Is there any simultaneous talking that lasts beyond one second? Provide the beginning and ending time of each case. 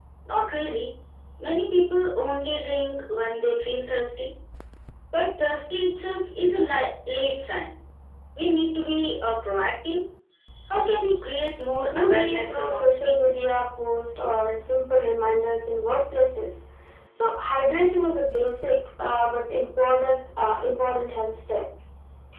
11.9-13.4

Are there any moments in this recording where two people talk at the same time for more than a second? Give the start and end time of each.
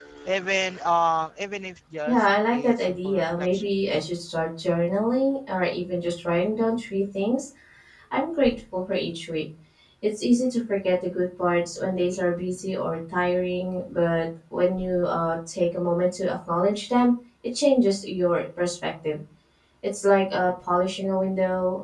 2.1-3.7

